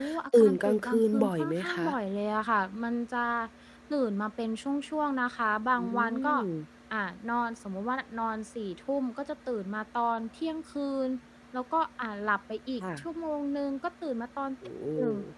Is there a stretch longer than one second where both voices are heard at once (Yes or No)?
Yes